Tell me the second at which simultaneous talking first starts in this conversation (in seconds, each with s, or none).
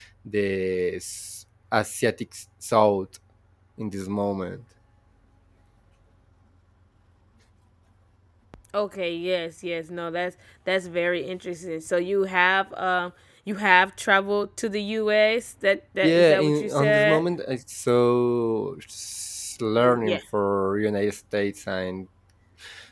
16.0 s